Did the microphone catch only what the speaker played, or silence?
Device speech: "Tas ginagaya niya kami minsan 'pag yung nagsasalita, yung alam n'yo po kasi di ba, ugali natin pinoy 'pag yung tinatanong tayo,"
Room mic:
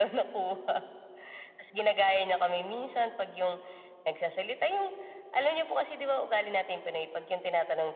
Yes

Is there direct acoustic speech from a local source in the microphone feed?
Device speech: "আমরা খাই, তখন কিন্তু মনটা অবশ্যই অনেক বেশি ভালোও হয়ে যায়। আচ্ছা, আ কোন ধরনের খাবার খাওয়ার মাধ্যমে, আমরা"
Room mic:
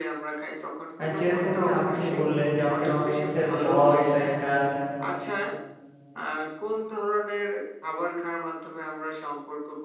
Yes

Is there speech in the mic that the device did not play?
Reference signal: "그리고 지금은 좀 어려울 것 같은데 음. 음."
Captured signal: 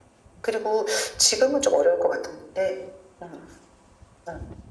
No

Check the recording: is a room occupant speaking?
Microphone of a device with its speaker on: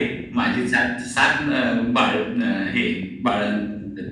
No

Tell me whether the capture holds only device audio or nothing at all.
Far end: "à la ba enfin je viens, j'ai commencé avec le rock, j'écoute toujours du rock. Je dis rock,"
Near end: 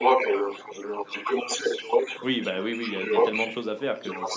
No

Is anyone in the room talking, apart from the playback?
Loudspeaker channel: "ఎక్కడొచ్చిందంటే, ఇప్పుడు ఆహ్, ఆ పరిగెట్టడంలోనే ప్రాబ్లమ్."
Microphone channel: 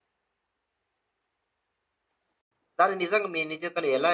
Yes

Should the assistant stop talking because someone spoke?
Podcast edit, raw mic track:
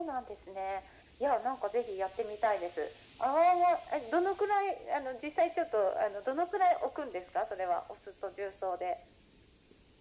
No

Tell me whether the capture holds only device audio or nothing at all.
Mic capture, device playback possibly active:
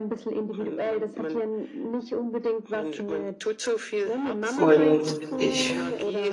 No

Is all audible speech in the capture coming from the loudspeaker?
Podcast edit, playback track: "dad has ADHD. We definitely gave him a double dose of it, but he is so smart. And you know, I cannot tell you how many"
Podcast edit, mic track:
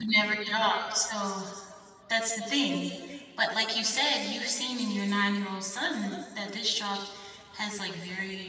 No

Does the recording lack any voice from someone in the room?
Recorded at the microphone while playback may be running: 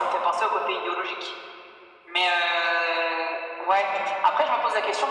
Yes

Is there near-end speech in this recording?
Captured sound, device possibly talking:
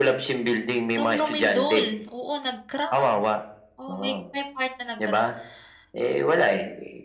Yes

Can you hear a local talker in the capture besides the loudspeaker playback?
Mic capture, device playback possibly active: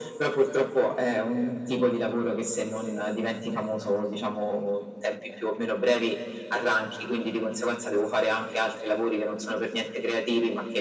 No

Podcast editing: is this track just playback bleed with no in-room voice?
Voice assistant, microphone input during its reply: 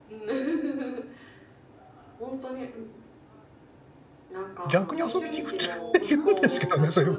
No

